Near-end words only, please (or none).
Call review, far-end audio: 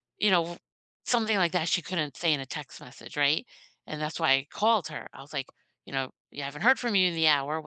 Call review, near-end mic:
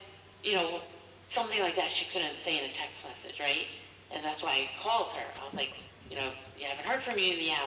none